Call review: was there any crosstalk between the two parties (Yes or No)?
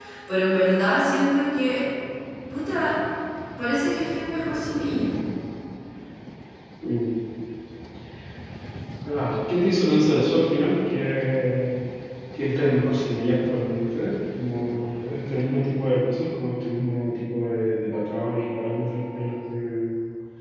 No